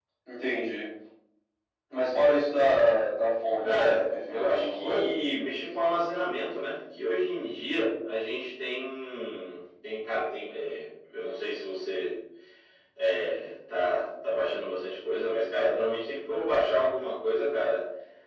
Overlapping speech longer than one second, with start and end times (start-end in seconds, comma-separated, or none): 3.6-5.2